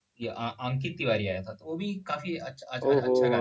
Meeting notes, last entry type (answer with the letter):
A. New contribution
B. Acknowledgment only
A